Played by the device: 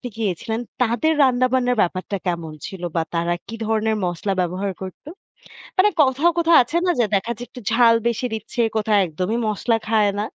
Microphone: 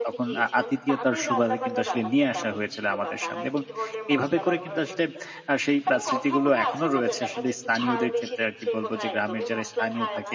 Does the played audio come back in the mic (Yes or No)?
Yes